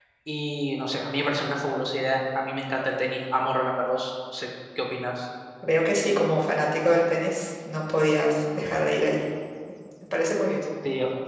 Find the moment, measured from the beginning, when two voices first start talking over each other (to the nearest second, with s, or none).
none